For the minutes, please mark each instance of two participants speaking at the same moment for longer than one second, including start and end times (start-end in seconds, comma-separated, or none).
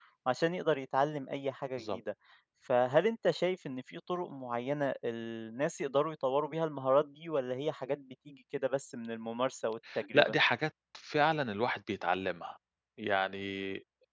none